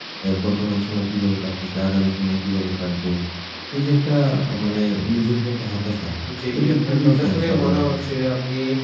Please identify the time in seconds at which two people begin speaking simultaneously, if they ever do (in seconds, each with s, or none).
6.6 s